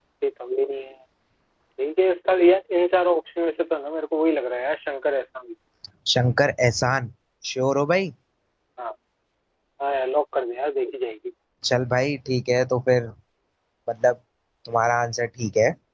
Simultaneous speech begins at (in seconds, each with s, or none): none